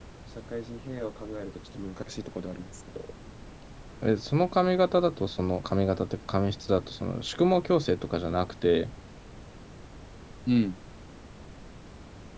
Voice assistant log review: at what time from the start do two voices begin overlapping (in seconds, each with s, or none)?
none